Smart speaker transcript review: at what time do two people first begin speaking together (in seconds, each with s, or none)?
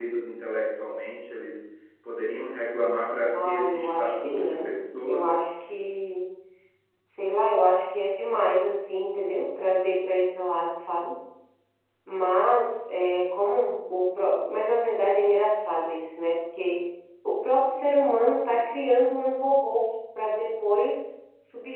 3.3 s